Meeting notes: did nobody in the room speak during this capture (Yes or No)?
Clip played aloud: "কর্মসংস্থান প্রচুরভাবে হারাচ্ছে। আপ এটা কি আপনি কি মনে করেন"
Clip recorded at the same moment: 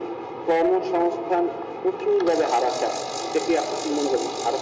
Yes